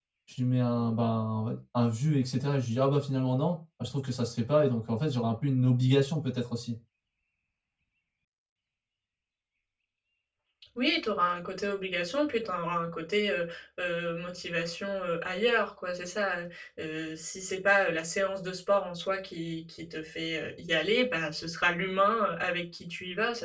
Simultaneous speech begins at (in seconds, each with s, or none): none